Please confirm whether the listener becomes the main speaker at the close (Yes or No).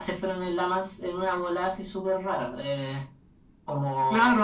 Yes